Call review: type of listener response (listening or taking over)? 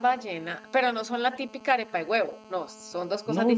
taking over